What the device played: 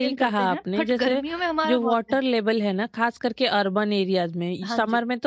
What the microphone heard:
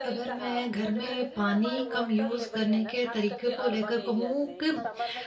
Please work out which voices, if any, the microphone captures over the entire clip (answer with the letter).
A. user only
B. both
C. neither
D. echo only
B